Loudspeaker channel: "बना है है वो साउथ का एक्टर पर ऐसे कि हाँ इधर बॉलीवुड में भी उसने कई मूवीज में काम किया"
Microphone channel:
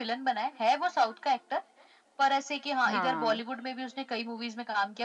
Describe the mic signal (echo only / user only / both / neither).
both